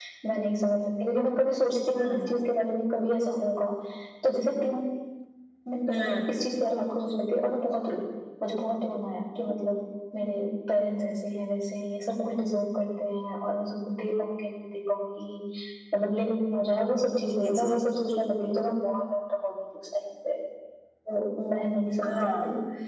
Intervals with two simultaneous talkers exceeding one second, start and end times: none

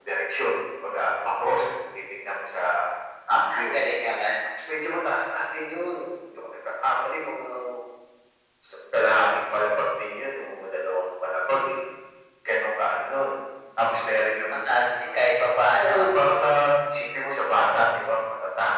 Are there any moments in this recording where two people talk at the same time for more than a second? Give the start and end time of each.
none

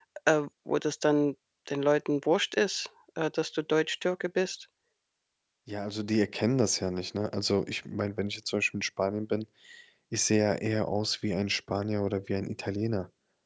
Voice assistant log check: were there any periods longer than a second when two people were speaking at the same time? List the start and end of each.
none

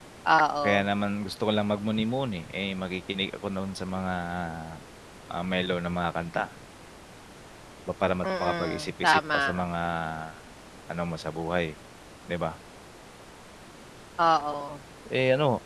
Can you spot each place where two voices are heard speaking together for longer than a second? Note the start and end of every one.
8.2-9.7

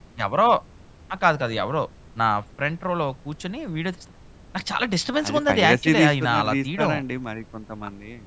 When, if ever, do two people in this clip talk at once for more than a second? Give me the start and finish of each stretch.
5.3-6.9

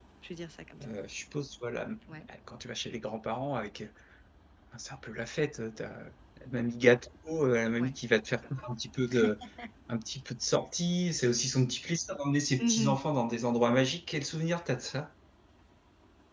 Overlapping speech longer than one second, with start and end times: none

